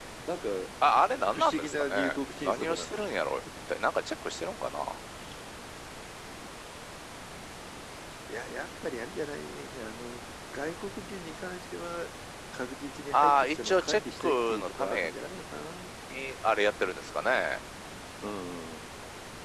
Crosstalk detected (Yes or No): Yes